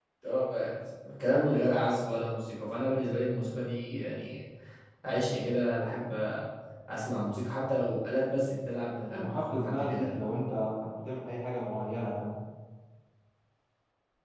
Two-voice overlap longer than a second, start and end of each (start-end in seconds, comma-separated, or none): 8.9-10.2